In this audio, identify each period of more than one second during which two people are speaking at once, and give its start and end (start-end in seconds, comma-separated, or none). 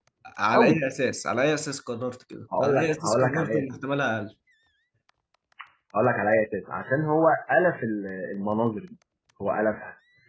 2.6-4.0